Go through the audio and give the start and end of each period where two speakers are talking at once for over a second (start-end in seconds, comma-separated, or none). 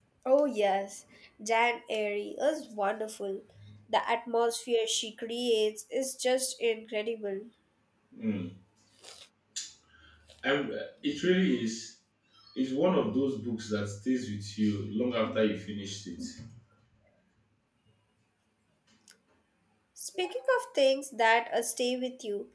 none